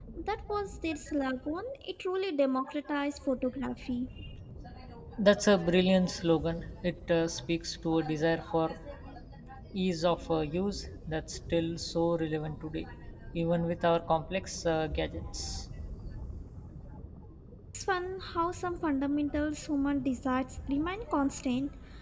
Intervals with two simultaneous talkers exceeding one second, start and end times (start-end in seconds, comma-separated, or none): none